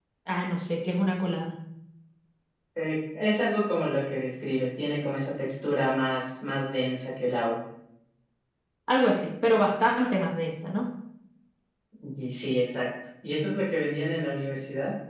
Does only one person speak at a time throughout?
Yes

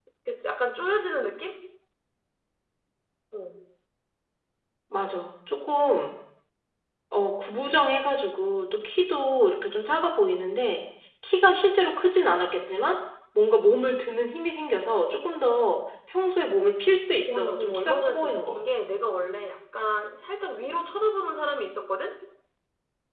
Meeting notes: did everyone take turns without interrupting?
No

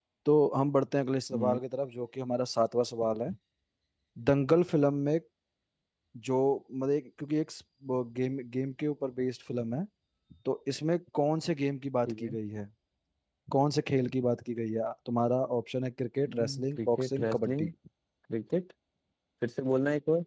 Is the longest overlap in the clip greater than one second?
Yes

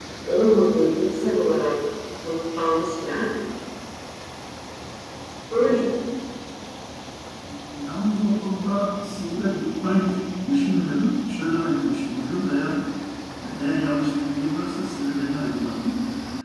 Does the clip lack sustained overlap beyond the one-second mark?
Yes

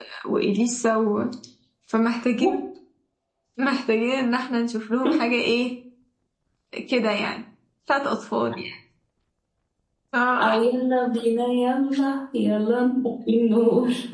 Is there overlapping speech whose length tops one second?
No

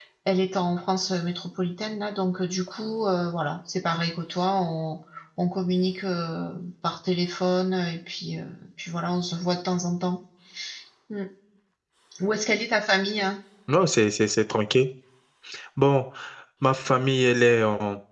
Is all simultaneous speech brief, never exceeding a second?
Yes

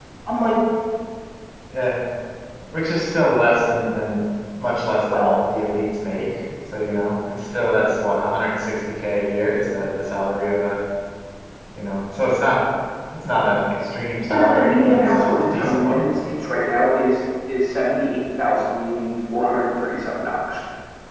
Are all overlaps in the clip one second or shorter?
No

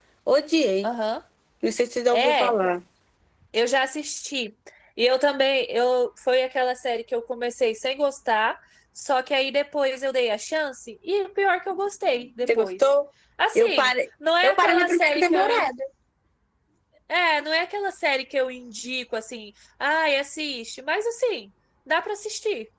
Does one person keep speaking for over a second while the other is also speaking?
Yes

